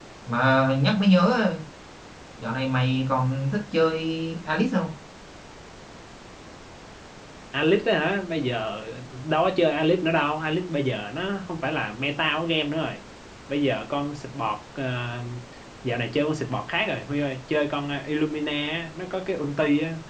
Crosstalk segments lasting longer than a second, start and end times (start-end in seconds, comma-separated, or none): none